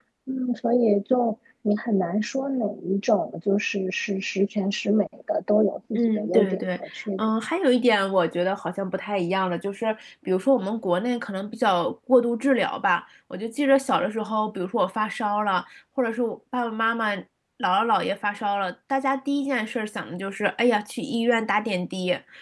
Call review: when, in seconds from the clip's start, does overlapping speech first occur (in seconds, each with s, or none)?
5.9 s